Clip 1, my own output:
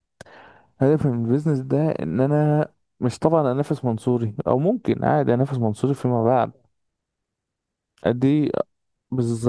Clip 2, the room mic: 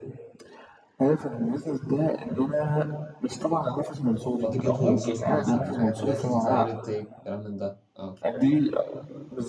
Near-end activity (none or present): present